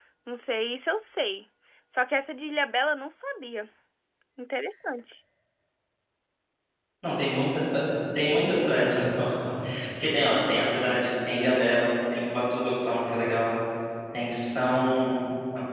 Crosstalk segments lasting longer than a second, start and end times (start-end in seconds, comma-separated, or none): none